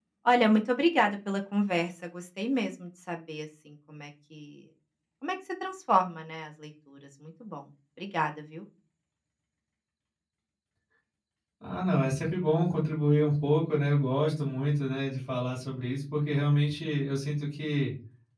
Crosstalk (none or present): none